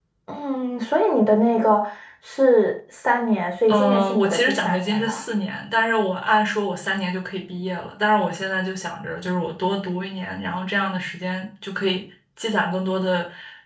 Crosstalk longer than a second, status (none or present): present